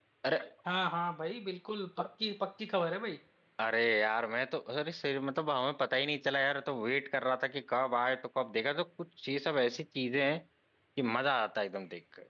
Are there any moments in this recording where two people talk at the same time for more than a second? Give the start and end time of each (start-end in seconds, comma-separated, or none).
none